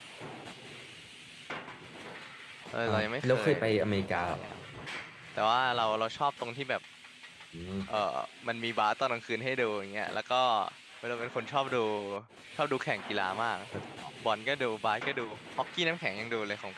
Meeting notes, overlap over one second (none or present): present